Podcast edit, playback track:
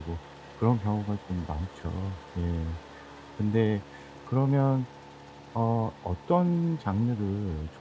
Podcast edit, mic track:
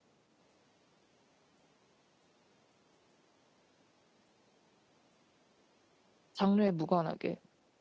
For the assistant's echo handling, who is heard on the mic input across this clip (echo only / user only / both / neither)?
user only